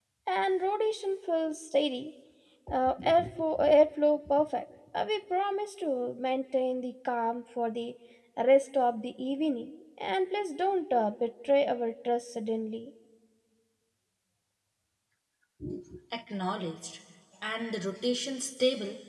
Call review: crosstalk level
none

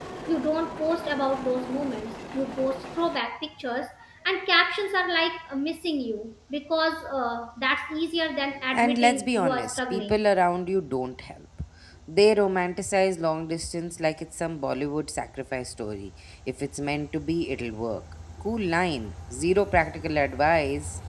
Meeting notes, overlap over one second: present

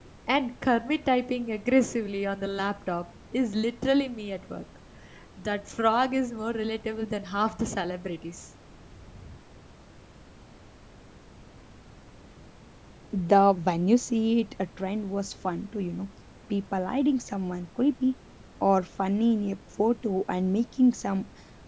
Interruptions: none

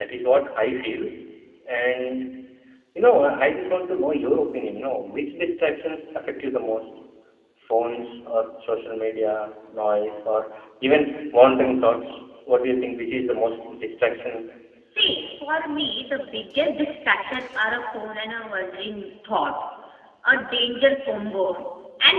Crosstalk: none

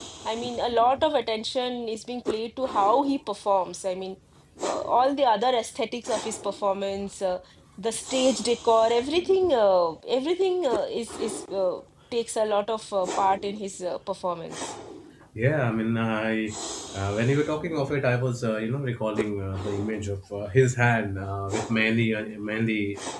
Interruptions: none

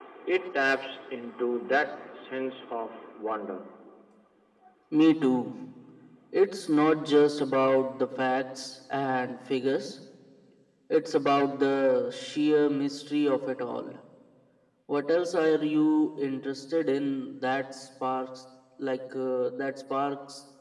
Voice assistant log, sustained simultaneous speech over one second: none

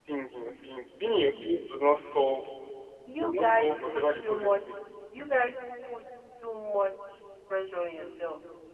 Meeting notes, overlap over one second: present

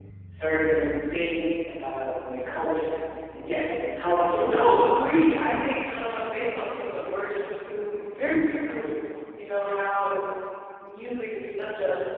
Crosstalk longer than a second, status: none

